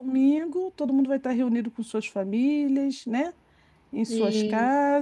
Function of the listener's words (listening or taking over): listening